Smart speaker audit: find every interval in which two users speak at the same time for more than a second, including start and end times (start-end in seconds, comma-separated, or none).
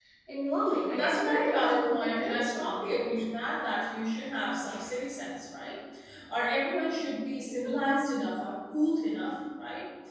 1.0-2.7